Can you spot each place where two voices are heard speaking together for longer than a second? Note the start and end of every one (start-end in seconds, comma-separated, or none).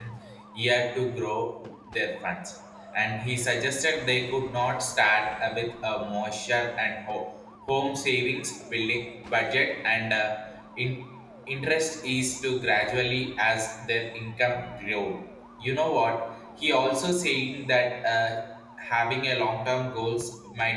none